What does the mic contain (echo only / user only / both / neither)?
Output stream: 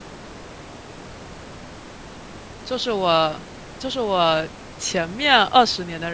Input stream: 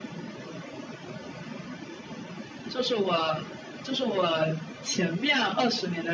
echo only